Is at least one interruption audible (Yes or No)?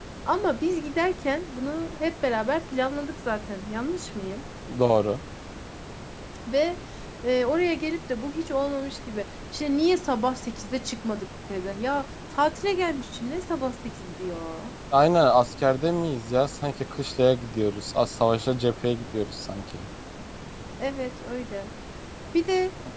No